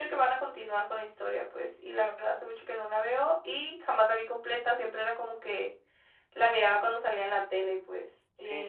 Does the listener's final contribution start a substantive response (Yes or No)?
Yes